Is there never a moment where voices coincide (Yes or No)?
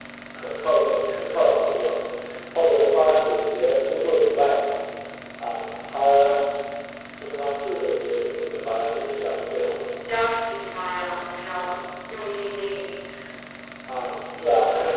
Yes